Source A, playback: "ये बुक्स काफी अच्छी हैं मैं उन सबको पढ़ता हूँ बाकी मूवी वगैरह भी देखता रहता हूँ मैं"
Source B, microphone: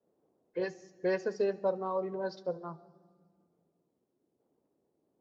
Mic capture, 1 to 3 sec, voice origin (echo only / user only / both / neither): user only